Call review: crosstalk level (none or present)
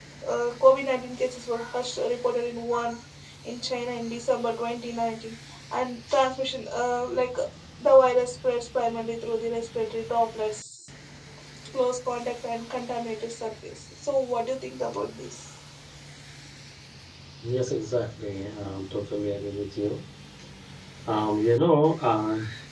none